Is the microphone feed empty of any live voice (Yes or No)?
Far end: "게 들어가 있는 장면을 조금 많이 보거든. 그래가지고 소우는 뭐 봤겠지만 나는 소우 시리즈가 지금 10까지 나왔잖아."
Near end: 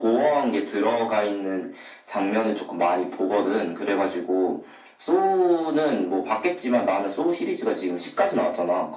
Yes